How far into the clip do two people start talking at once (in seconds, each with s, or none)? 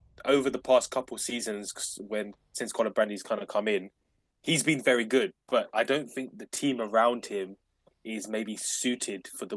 none